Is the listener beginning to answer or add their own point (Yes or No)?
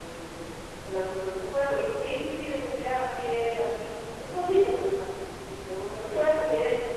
No